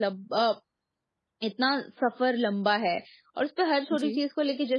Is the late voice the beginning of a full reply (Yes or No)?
No